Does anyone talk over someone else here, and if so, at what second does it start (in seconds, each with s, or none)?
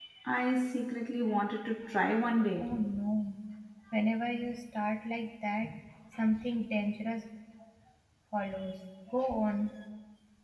none